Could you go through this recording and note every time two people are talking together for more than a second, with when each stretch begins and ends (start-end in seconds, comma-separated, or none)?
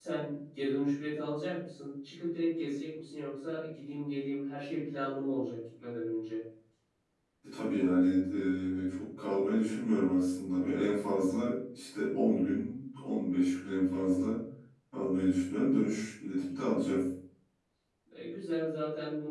none